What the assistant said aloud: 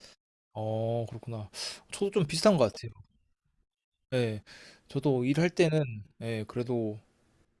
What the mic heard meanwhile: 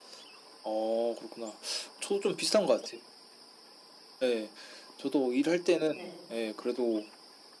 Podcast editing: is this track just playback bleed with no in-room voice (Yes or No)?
No